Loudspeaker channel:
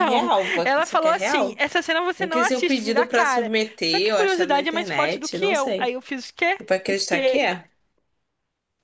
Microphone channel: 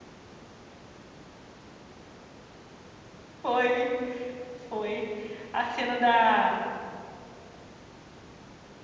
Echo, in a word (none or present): none